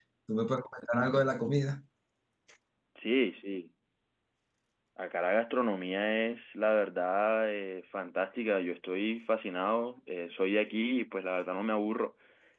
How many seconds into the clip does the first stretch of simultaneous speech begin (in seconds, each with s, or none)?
none